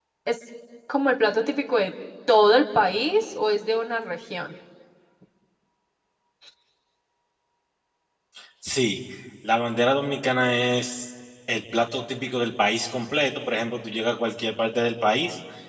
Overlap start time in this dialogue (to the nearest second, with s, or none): none